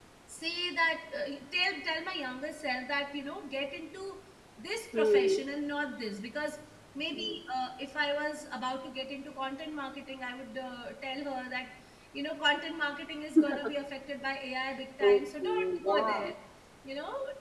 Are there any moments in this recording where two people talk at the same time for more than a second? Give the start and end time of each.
15.0-16.3

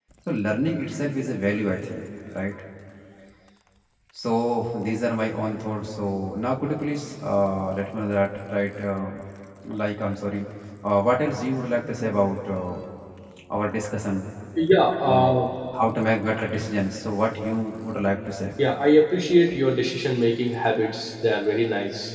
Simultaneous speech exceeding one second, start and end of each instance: none

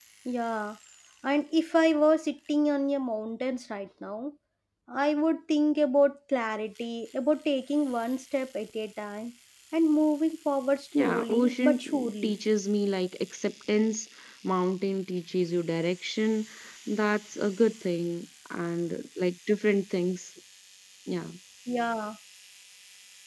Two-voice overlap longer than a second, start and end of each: 11.0-12.3

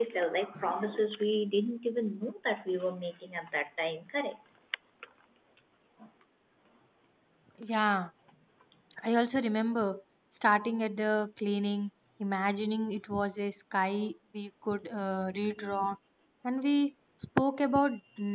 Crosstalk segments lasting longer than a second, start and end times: none

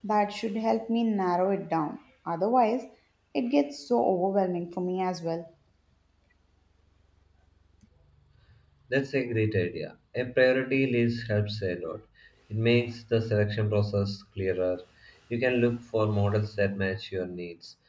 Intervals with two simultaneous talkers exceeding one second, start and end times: none

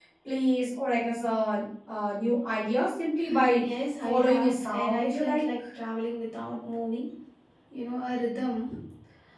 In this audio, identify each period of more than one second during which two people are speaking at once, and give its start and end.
4.0-5.4

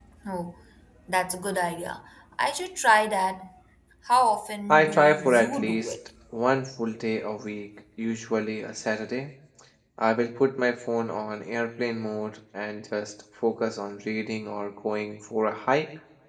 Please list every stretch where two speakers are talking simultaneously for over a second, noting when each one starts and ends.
4.7-5.9

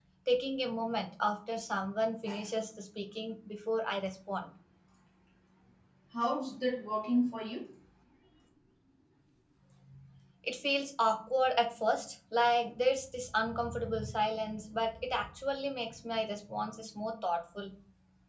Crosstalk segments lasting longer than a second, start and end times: none

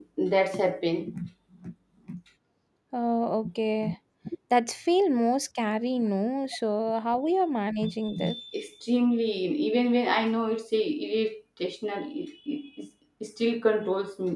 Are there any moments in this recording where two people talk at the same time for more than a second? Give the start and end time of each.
none

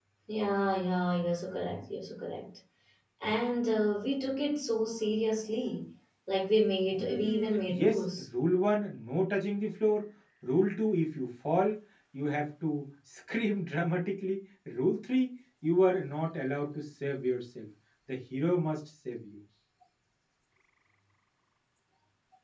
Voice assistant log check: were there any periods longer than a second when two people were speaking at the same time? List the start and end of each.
7.0-8.2

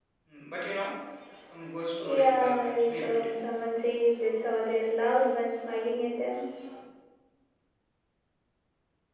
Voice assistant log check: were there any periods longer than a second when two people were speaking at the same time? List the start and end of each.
2.0-3.3

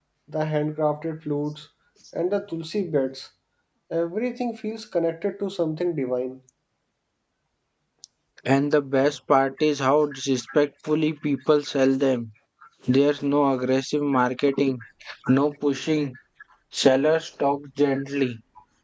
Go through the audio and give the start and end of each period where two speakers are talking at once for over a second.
none

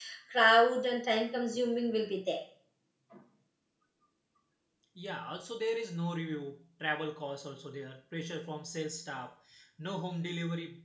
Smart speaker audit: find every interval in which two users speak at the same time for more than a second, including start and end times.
none

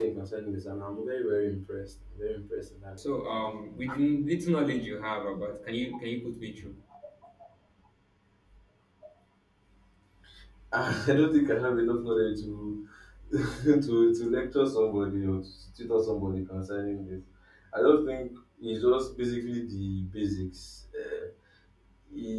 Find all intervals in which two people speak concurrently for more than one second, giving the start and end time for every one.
none

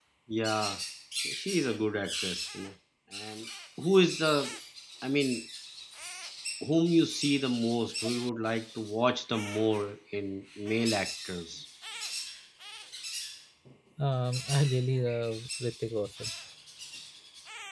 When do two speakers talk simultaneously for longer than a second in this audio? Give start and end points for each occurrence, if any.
none

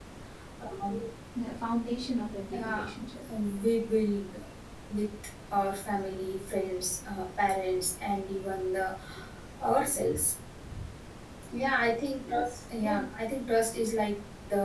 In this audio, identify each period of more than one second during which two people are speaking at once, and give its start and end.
none

